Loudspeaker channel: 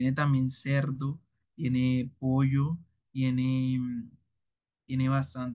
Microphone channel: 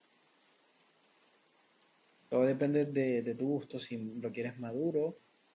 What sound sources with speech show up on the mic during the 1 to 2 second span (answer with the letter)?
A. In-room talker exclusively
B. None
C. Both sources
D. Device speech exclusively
B